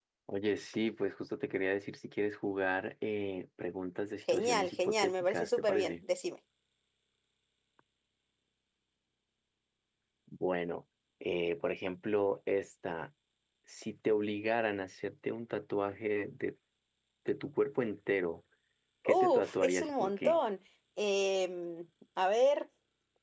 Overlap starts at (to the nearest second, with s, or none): 4 s